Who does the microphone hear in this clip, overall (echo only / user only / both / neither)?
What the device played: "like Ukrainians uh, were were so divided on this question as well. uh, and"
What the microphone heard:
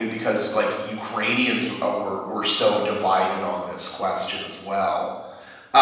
echo only